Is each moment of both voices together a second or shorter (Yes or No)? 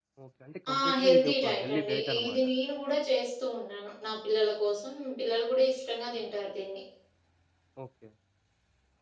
No